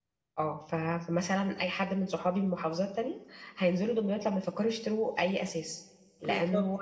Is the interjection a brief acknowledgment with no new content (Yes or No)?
Yes